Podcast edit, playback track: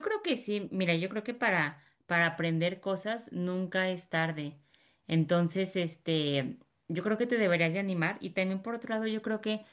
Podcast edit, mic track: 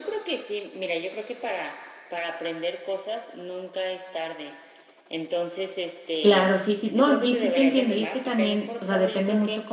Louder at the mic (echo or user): user